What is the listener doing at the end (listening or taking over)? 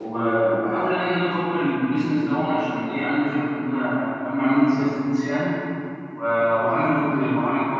listening